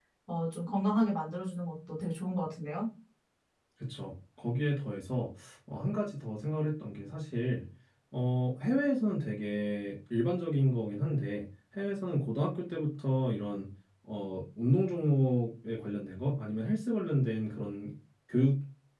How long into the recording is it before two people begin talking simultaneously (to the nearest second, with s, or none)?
none